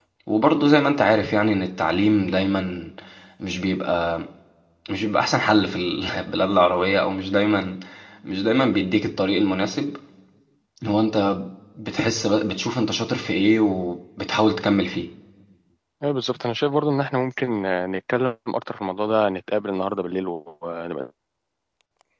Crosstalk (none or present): none